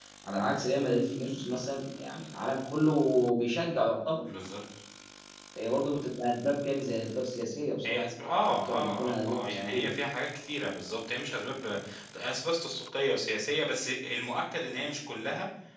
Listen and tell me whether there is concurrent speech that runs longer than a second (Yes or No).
Yes